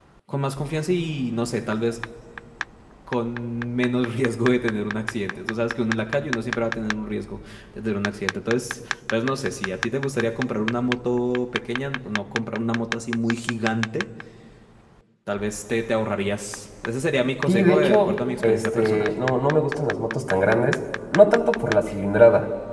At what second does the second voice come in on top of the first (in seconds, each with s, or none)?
17.5 s